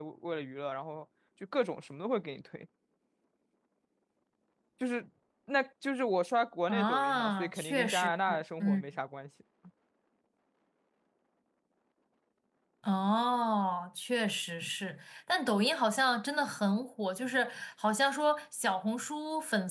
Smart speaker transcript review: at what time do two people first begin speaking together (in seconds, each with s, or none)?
6.7 s